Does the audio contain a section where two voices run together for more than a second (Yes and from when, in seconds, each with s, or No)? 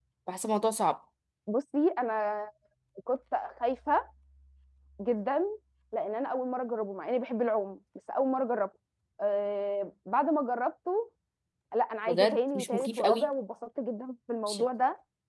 Yes, from 12.1 s